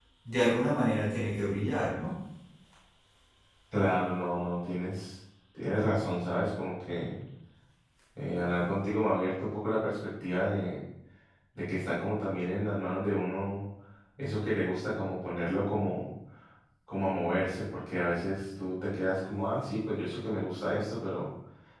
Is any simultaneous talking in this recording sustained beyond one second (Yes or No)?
No